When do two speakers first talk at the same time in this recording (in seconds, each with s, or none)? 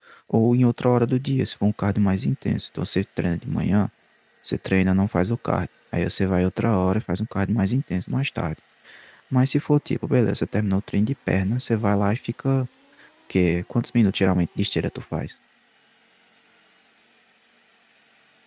none